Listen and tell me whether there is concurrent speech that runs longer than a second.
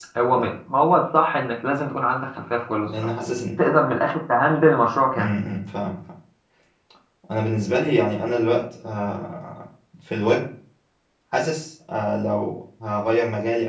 No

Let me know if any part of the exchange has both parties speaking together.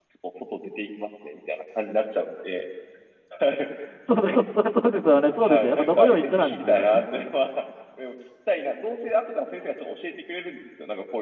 Yes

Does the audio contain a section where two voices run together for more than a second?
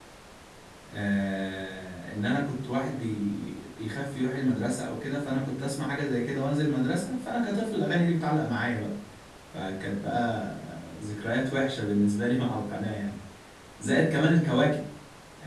No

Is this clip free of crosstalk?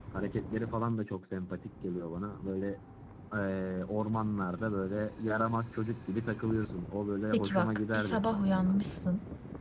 No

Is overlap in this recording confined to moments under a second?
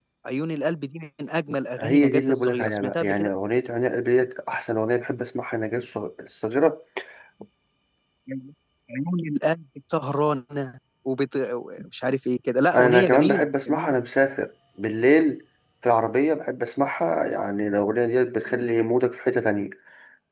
No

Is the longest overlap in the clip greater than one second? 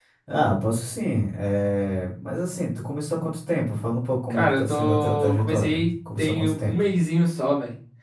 Yes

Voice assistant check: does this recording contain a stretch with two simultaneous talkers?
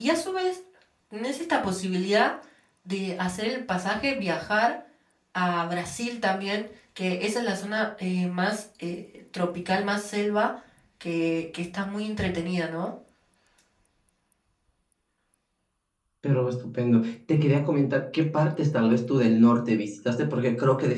No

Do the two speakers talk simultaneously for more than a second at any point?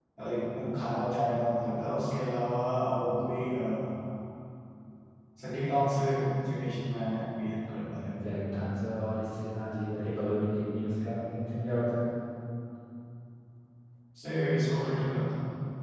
No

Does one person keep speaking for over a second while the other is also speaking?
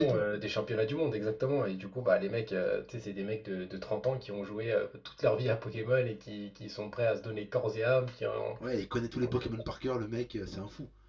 No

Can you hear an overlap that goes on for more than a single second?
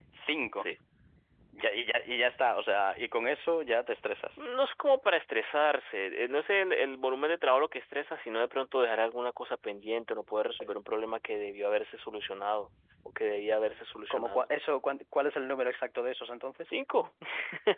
No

